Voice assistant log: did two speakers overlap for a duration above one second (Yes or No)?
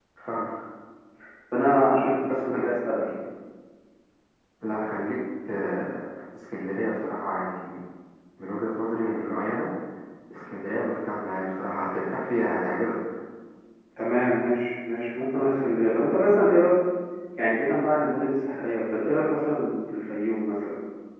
No